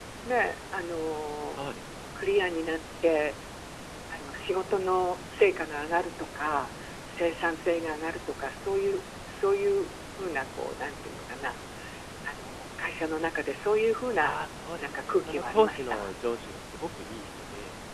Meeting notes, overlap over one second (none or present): present